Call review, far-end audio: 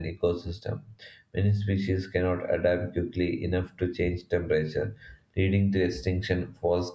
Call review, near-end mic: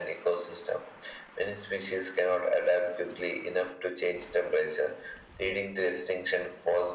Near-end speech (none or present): none